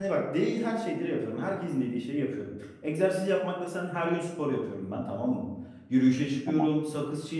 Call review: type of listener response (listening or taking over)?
listening